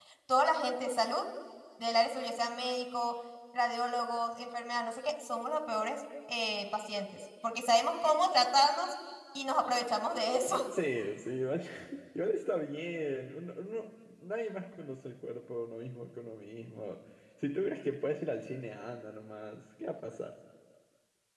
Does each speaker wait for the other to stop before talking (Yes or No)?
Yes